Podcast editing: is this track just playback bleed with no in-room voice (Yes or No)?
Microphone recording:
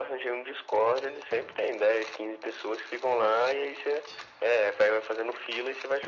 Yes